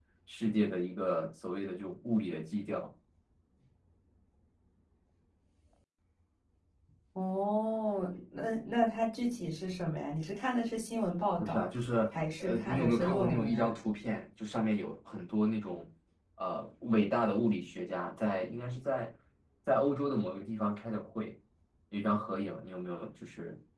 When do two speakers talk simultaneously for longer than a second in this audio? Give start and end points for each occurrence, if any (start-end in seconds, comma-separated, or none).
12.4-13.7